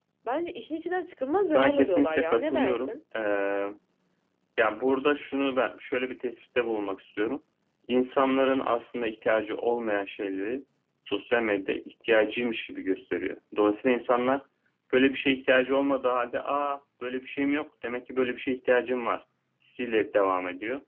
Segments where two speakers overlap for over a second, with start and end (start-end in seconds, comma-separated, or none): 1.5-3.0